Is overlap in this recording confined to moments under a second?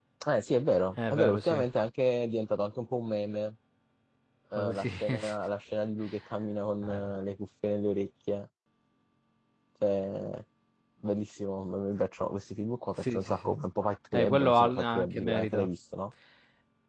No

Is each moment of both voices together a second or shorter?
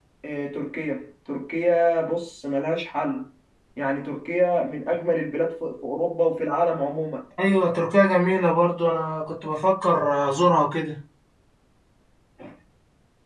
Yes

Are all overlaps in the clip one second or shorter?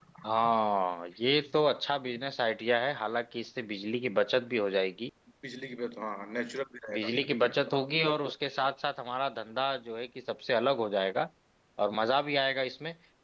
Yes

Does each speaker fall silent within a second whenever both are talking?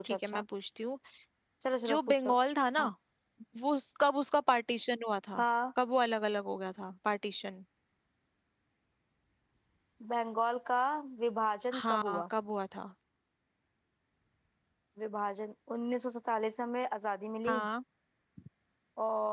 Yes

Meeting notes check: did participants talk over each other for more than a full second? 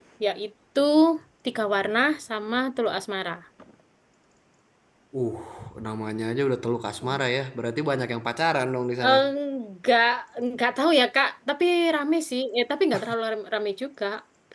No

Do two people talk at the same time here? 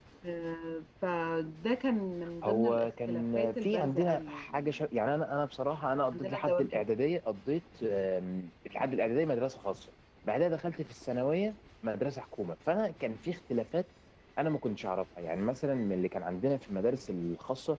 Yes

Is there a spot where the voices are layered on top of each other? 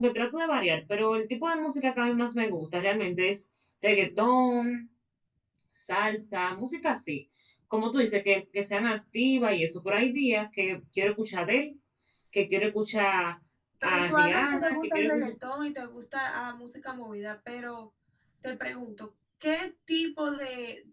Yes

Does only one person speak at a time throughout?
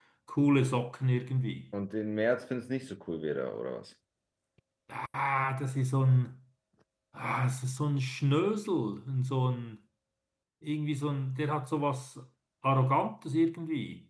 Yes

